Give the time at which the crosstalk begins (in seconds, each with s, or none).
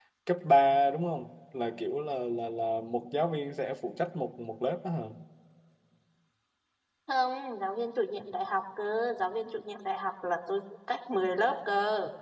none